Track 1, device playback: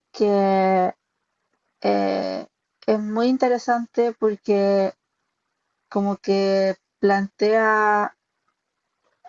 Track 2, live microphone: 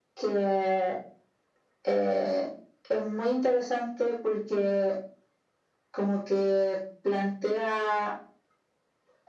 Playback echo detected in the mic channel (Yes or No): Yes